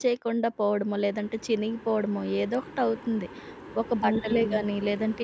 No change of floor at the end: Yes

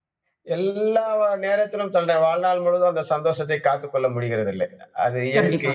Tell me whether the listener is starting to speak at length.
No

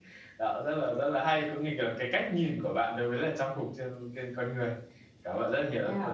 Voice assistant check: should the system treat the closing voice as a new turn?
Yes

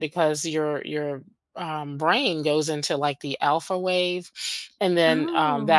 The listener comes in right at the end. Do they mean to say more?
No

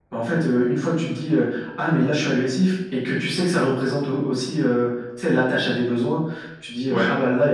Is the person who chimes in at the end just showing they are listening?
Yes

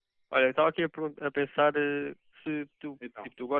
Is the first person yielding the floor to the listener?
No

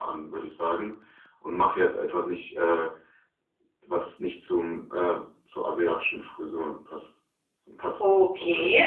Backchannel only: No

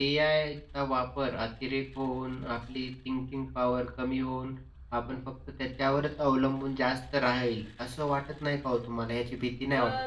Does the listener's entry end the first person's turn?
Yes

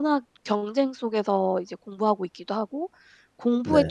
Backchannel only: Yes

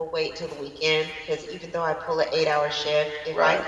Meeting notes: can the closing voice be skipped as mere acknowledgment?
Yes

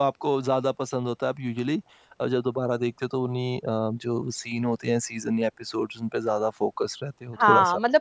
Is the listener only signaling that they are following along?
No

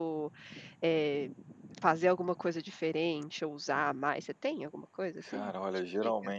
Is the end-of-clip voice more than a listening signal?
Yes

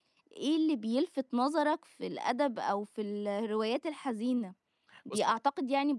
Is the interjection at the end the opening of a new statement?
No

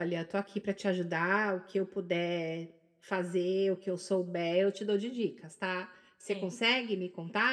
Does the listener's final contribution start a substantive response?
No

